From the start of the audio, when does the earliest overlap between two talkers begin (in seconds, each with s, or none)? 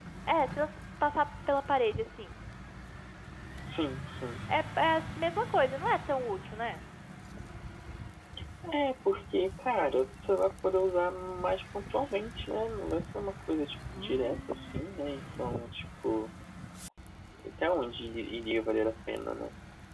none